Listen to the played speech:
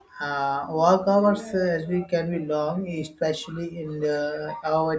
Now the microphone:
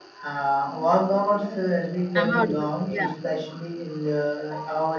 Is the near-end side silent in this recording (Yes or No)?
No